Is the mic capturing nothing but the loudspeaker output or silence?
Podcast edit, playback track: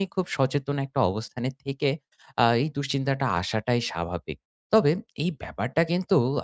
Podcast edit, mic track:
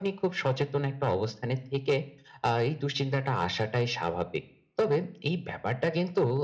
Yes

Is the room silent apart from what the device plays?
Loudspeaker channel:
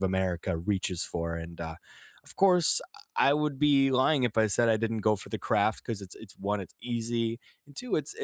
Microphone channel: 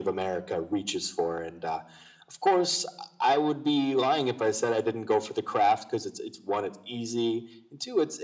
Yes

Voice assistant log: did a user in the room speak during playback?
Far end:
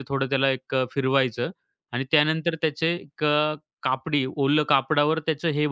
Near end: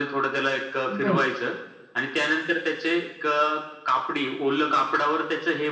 Yes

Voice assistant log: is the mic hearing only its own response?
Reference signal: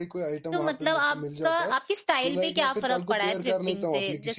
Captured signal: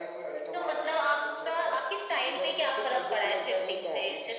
Yes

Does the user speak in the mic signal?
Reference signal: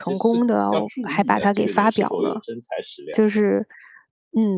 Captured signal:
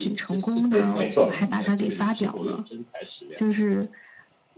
Yes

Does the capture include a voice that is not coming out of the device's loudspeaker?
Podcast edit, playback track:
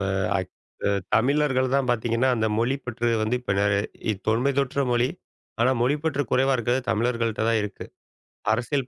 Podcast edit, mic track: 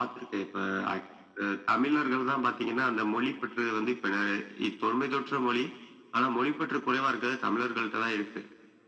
No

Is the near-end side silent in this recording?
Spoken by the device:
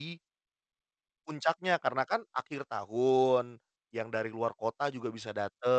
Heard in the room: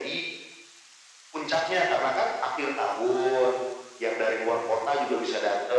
Yes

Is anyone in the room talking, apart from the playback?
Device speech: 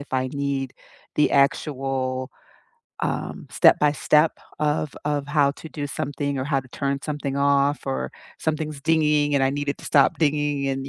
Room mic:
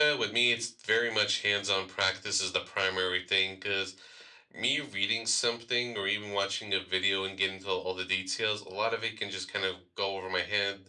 Yes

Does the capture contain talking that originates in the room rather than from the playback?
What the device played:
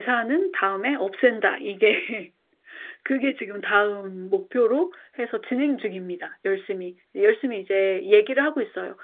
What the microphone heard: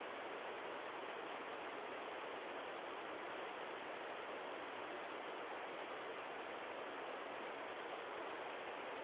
No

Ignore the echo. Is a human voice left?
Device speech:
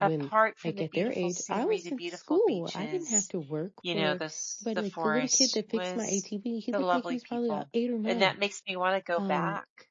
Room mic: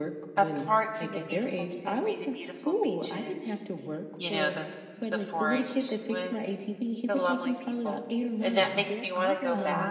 Yes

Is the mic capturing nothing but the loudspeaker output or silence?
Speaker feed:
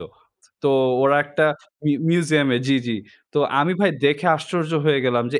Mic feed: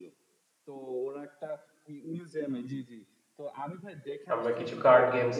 No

